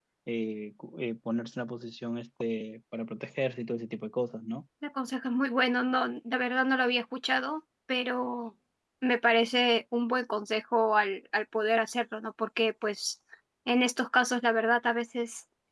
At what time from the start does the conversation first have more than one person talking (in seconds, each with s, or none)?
none